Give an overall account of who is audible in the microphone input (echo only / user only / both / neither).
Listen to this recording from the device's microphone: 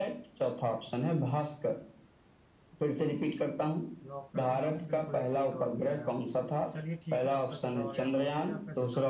both